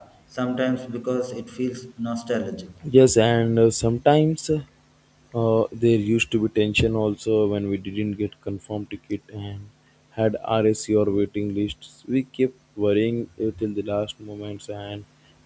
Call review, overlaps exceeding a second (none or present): none